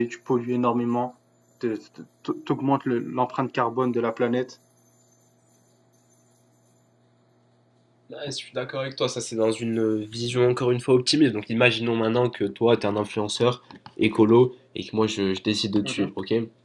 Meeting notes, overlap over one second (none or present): none